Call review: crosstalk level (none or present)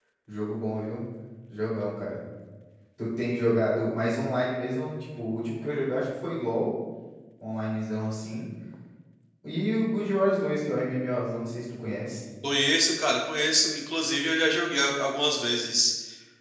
none